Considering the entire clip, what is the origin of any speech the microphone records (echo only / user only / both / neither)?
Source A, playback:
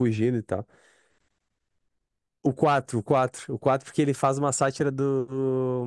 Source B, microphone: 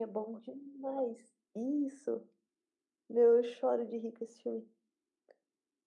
user only